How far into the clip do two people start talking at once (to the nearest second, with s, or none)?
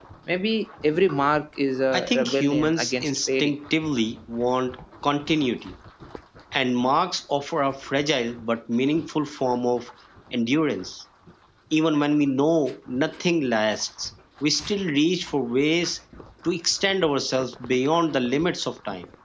2 s